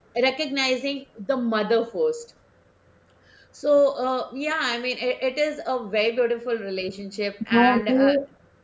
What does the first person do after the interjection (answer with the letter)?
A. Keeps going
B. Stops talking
B